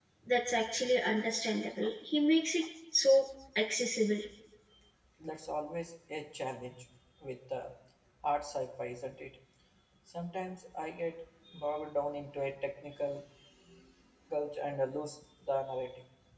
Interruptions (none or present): none